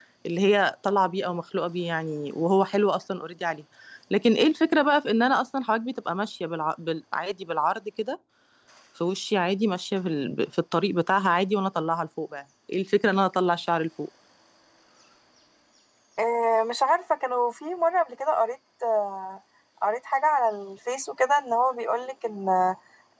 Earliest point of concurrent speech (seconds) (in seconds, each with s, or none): none